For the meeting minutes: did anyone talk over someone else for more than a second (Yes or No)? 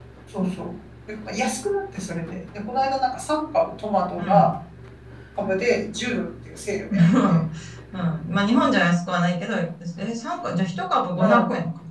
No